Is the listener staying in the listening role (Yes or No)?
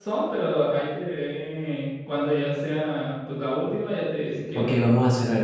No